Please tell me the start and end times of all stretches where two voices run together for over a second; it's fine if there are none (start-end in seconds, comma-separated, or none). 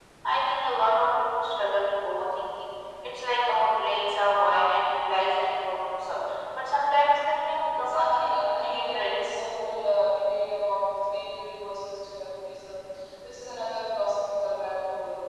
7.7-9.4